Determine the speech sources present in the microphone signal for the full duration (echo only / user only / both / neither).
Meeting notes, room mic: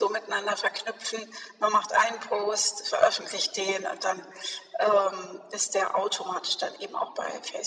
echo only